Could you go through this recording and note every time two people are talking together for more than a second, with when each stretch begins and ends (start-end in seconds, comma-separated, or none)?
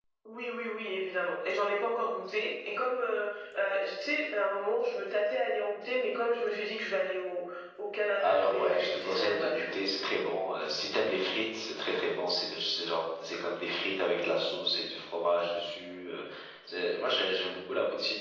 8.2-9.8